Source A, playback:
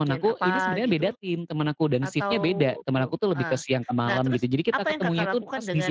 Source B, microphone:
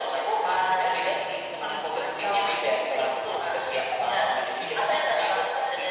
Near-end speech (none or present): present